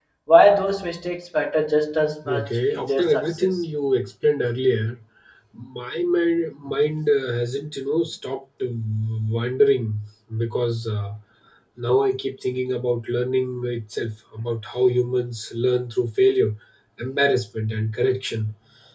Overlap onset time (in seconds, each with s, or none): 2.2 s